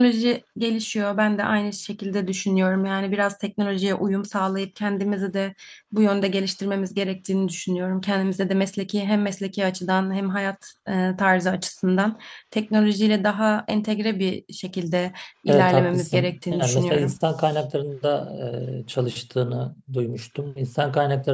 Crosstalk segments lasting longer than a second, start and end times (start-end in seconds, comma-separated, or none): 15.5-17.2